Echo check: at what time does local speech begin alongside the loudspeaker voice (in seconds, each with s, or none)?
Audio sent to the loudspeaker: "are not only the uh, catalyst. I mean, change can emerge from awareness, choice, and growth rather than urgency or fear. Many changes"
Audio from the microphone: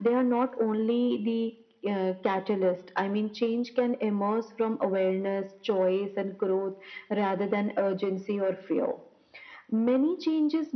none